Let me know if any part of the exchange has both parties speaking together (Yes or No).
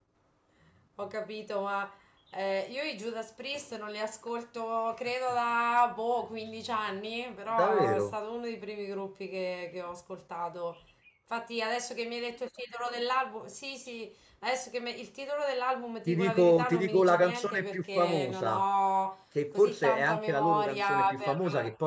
Yes